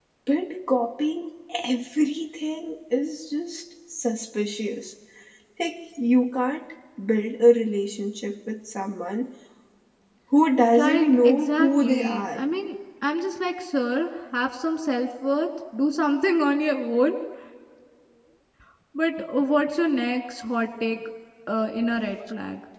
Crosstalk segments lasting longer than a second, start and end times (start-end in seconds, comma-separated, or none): 10.8-12.4